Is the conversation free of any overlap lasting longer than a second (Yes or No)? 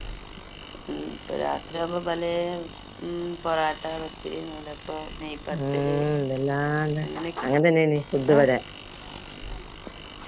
Yes